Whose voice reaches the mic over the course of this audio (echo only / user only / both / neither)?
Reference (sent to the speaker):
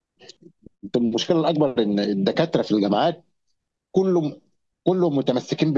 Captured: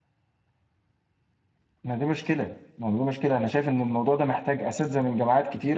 user only